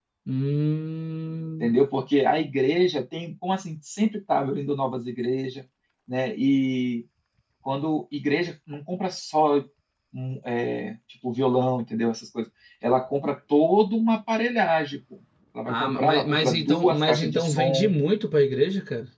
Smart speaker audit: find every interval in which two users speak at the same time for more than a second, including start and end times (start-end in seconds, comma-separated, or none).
15.7-18.0